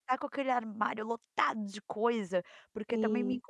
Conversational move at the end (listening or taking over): listening